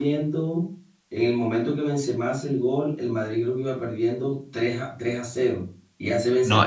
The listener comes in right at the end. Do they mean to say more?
Yes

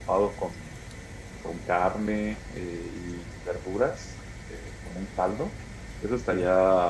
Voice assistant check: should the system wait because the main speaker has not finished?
Yes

